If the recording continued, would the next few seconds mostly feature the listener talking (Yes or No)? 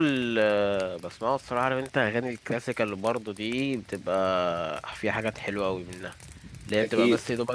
No